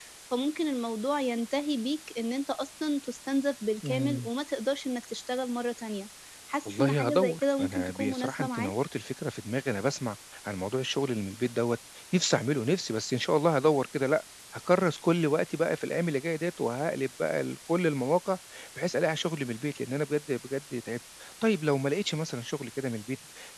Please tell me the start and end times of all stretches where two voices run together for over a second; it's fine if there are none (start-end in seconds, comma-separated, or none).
6.7-8.7